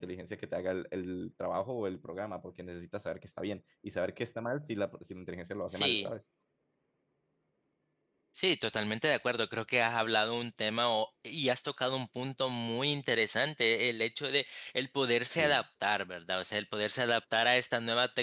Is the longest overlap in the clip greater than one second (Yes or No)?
No